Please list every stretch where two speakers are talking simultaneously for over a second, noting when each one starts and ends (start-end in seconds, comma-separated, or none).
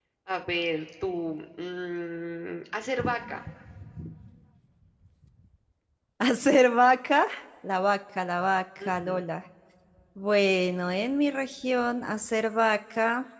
none